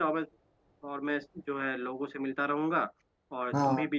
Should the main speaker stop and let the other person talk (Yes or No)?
No